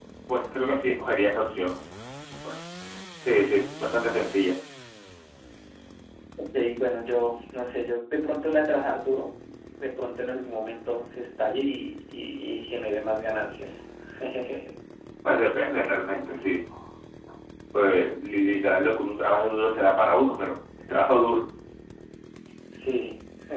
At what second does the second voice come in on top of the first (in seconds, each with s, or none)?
none